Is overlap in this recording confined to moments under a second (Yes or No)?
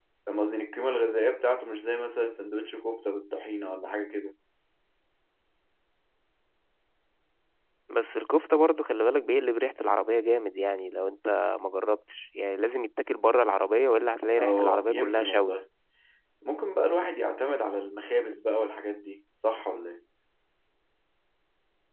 No